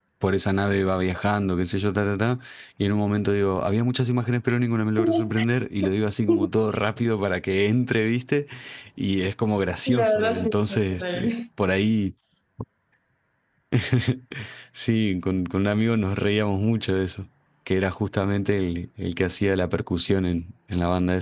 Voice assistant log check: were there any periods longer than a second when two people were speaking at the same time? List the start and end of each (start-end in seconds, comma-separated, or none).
9.9-11.3